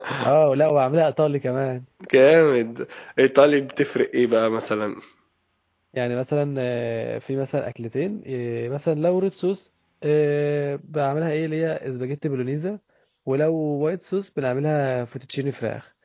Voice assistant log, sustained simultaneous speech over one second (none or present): none